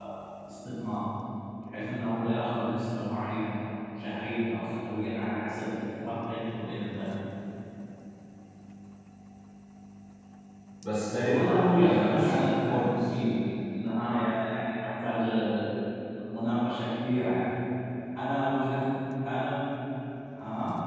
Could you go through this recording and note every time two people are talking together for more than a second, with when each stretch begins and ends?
11.2-13.0

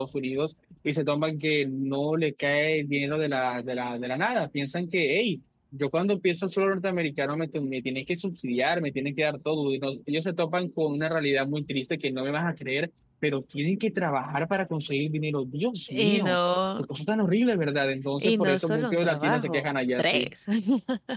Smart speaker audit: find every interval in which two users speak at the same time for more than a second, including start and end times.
18.2-20.3

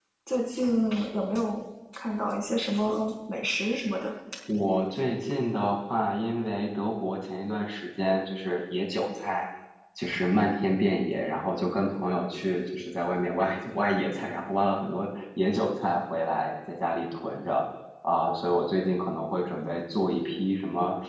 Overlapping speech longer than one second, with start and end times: none

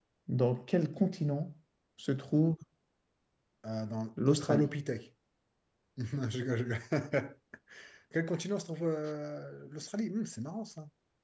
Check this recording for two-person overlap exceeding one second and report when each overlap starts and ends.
none

